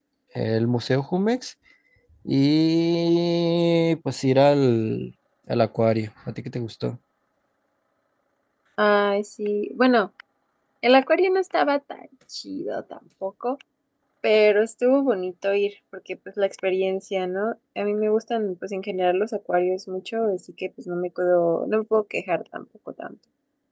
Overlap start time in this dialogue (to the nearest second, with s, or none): none